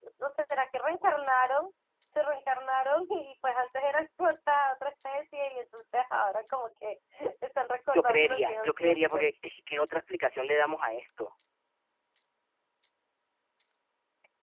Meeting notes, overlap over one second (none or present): present